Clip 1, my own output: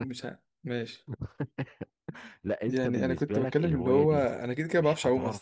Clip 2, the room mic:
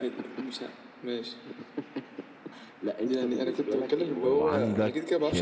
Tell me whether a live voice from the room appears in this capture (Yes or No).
Yes